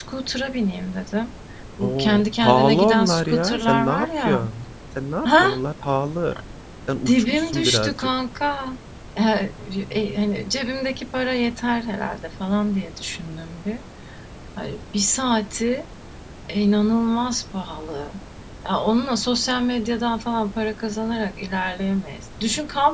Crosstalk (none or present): present